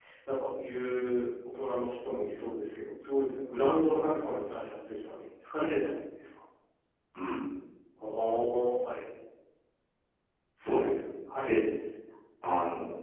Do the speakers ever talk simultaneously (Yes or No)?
No